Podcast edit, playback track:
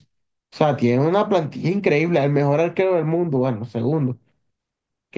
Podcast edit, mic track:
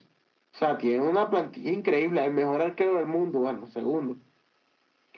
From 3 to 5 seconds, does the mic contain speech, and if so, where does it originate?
echo only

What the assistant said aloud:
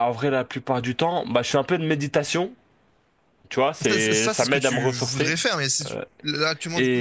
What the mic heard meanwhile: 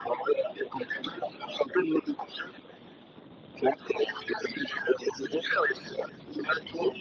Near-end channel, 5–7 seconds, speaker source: echo only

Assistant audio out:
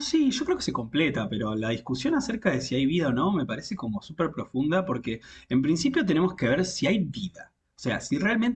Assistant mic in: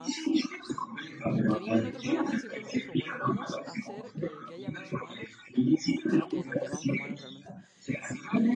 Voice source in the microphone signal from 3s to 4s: both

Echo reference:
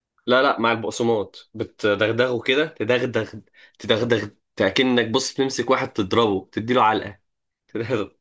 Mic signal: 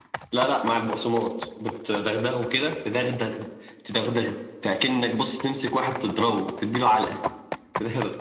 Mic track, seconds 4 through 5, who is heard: echo only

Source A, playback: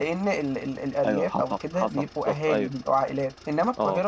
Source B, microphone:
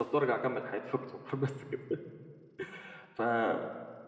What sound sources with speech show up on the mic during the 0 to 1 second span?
user only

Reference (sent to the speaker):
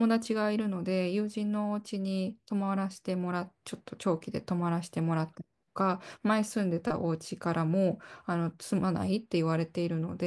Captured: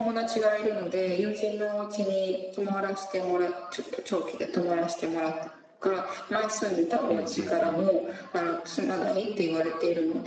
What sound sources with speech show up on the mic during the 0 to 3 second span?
echo only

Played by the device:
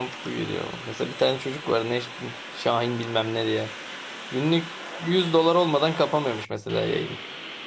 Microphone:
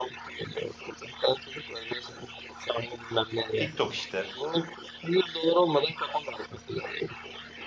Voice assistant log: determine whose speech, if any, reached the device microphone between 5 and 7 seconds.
echo only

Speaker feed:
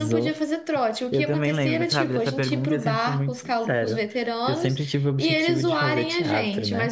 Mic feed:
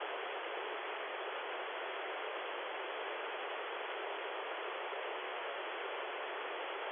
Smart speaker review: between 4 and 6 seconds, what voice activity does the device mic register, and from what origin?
neither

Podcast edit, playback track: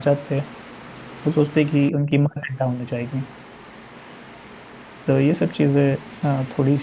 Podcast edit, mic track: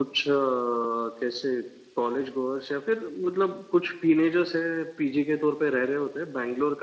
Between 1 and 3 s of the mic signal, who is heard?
user only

